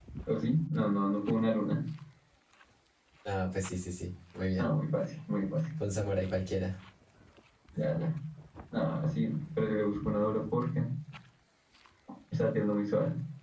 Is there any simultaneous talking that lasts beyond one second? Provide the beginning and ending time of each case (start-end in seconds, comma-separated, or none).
none